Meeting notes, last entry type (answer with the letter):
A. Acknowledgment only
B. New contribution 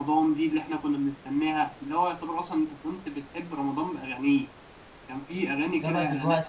B